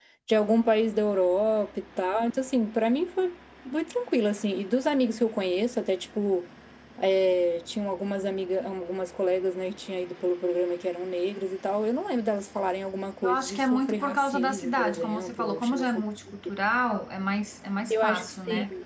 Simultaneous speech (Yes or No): Yes